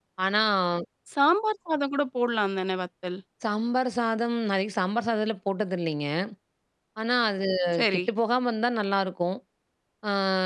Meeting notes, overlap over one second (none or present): none